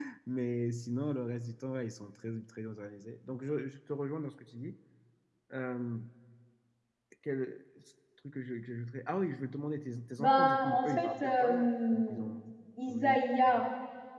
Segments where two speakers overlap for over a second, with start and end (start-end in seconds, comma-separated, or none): 10.2-12.1